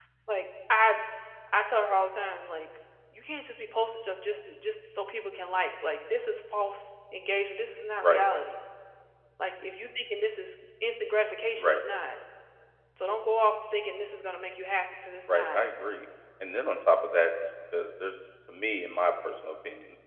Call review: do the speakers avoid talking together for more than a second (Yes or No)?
Yes